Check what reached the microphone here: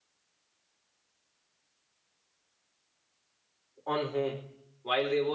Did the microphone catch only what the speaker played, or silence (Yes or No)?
No